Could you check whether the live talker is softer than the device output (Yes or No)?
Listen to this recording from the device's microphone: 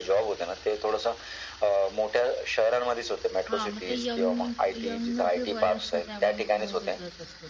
Yes